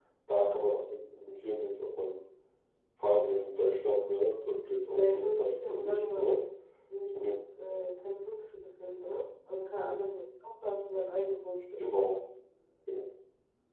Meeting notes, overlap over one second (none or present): present